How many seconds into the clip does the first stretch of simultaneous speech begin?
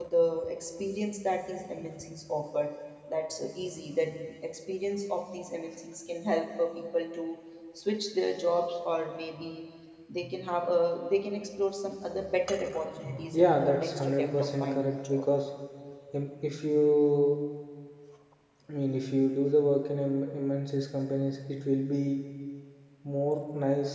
13.3 s

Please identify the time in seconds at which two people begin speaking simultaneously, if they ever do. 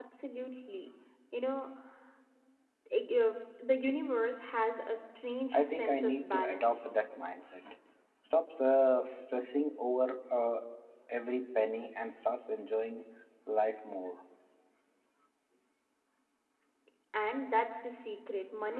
5.5 s

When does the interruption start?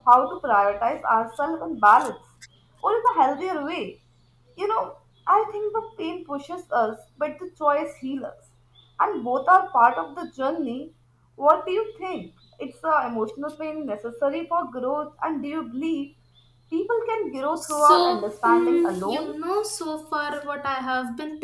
17.6 s

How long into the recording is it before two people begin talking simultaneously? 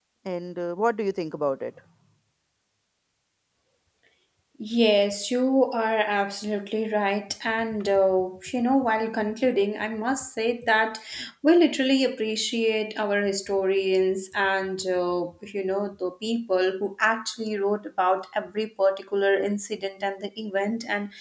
none

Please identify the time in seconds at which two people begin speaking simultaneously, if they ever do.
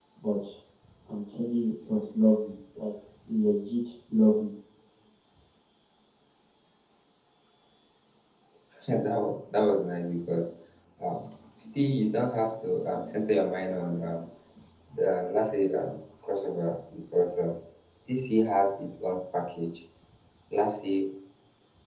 none

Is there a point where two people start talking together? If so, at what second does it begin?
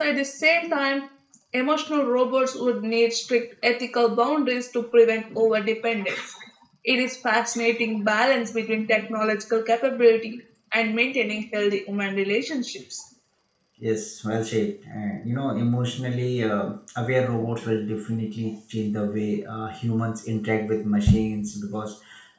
none

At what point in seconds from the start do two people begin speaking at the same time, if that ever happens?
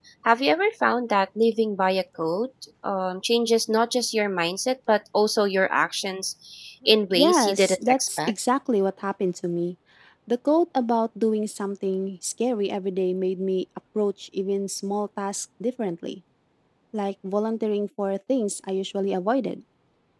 6.9 s

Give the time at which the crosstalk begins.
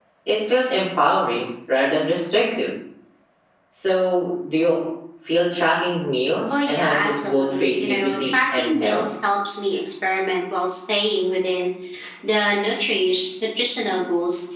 6.5 s

